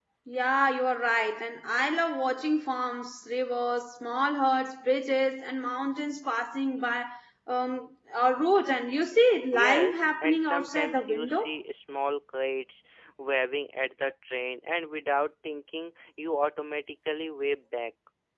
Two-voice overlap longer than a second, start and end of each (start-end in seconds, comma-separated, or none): 9.6-11.5